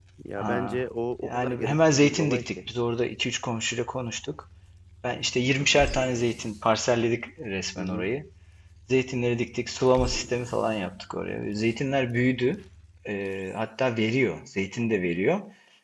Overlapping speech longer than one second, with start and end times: 1.2-2.6

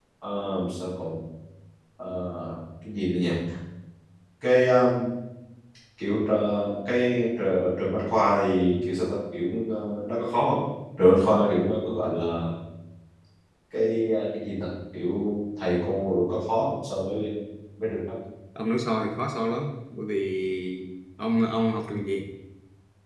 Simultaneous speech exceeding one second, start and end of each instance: none

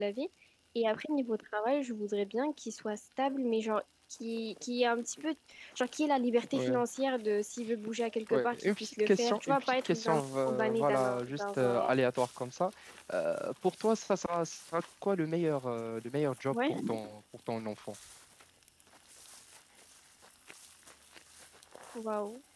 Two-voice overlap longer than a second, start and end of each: 8.3-12.0

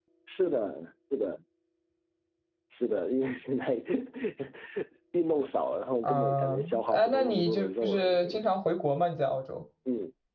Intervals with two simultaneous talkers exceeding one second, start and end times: 6.0-8.4

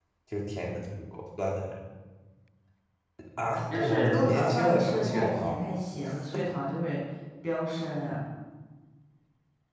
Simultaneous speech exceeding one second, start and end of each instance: 3.7-5.6

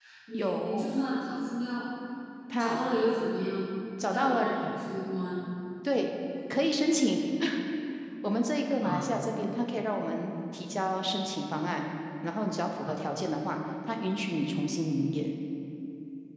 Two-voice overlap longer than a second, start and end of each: none

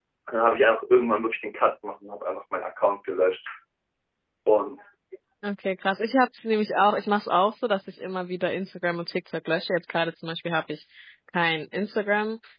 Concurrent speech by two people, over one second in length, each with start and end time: none

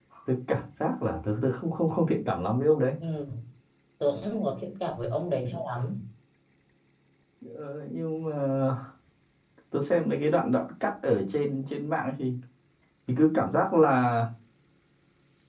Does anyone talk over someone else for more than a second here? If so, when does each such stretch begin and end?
none

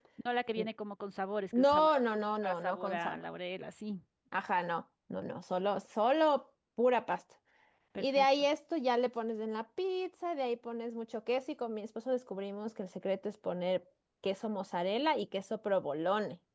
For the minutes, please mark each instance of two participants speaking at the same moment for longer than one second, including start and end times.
1.5-3.3

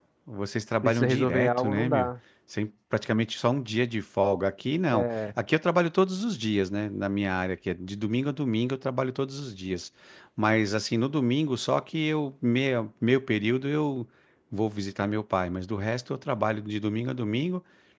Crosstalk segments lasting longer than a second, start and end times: 0.8-2.1

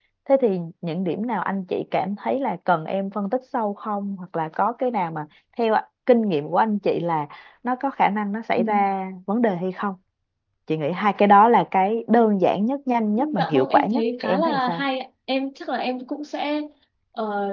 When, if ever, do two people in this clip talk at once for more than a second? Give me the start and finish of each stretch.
13.4-14.8

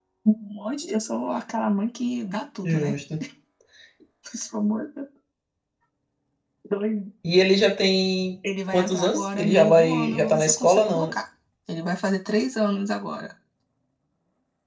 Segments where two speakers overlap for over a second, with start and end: 8.7-11.1

